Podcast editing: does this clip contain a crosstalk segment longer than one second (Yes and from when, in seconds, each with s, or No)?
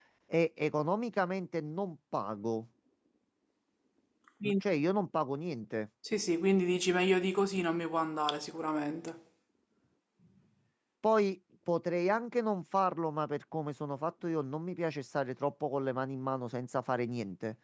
No